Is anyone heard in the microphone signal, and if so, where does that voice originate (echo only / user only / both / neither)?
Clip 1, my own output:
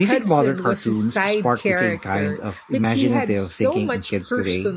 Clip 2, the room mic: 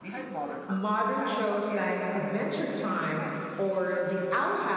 both